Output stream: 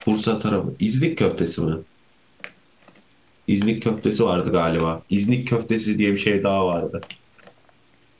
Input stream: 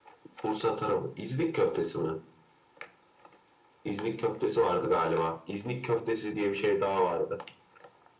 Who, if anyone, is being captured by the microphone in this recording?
echo only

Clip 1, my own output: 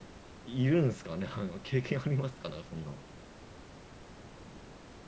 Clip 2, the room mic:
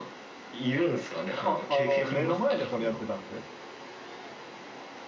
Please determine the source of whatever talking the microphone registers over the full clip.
both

